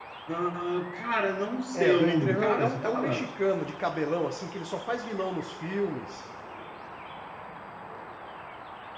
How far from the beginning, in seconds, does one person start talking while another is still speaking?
1.7 s

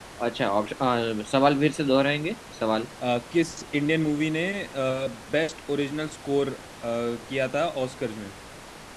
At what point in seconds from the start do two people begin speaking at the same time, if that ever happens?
none

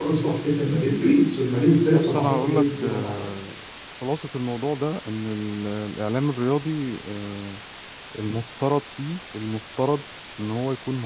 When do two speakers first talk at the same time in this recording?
1.9 s

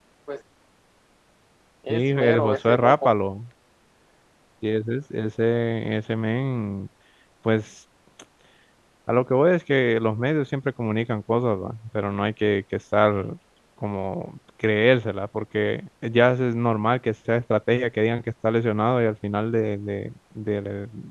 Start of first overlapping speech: 1.9 s

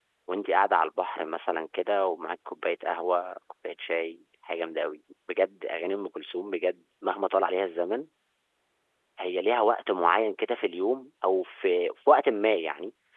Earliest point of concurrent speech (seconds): none

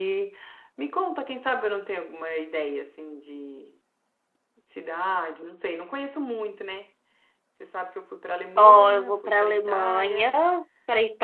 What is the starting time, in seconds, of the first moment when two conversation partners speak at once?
8.6 s

